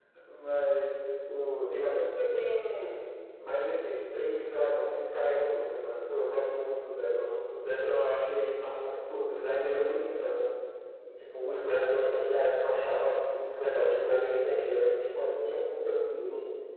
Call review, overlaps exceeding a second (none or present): none